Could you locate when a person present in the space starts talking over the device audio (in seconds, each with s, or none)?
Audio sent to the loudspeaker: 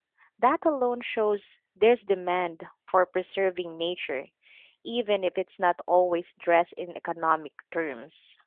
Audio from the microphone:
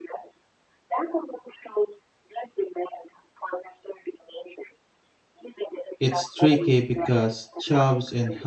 6.0 s